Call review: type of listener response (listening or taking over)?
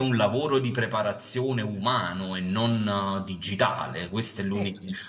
listening